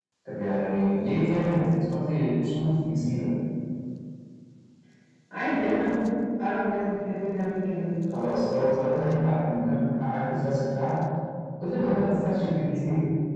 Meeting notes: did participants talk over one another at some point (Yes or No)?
No